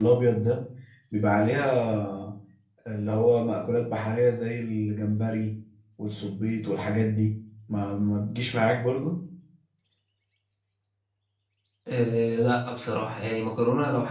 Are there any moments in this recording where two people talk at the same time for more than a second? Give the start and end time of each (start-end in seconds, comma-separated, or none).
none